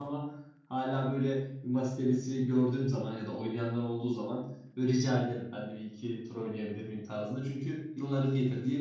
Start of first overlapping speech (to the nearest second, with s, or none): none